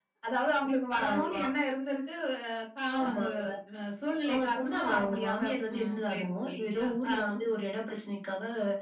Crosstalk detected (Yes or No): Yes